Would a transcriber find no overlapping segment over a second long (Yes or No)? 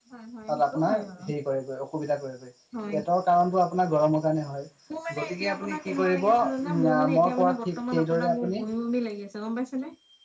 No